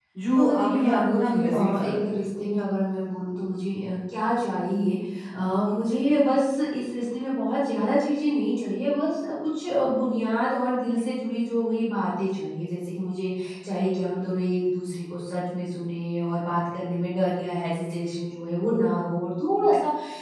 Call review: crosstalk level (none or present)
present